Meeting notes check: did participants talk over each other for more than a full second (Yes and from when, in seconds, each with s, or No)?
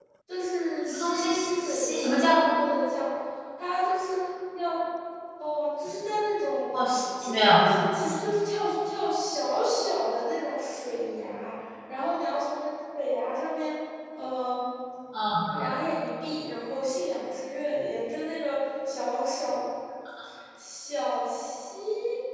Yes, from 0.9 s